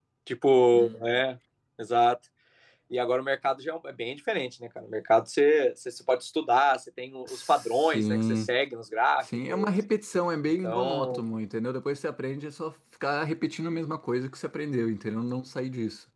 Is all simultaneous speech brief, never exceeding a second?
No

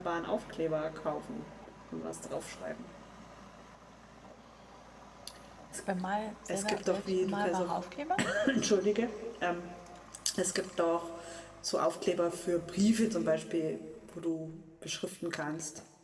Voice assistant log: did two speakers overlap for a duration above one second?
Yes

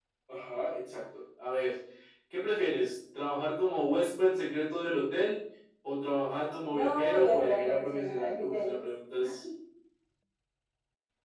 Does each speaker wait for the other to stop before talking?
No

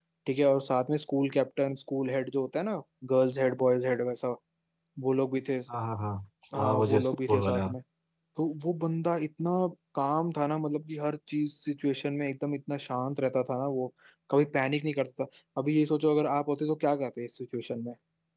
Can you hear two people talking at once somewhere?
Yes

